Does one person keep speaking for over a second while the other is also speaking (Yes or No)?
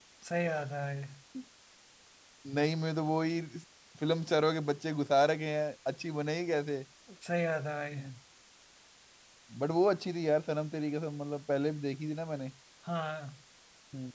No